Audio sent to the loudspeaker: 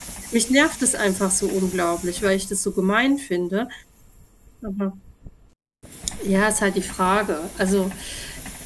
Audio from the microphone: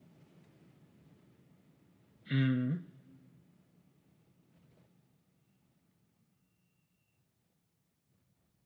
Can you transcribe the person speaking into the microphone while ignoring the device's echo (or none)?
Mhm,